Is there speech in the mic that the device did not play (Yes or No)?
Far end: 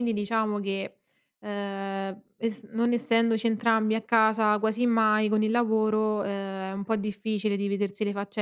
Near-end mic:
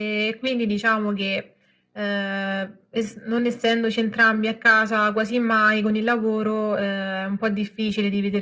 No